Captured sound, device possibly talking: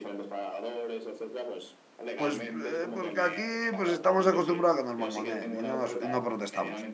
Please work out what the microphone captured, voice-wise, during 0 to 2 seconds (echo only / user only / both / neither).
echo only